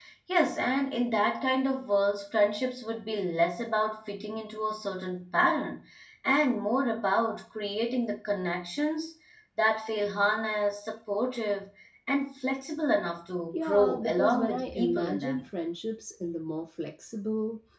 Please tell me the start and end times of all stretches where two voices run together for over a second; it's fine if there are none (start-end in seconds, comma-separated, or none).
13.5-15.4